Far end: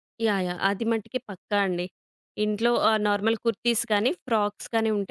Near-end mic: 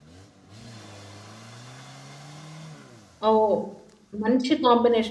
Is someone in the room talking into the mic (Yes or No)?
Yes